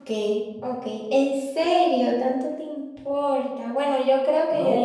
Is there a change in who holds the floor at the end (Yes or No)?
Yes